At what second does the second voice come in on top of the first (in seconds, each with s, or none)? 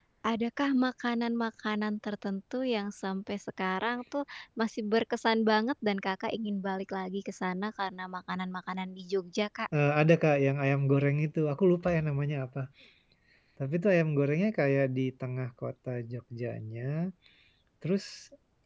none